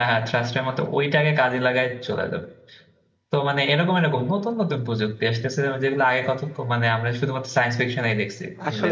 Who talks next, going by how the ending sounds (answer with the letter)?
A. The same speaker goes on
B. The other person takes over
B